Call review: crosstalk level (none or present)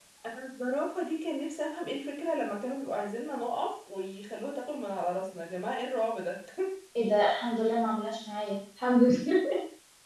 none